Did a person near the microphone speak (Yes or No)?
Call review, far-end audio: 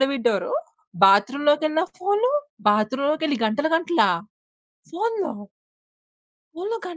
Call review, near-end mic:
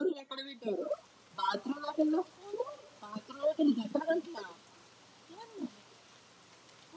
No